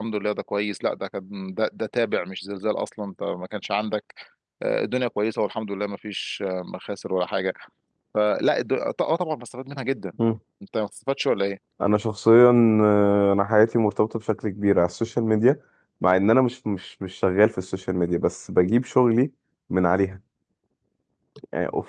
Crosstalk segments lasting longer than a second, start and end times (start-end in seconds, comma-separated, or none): none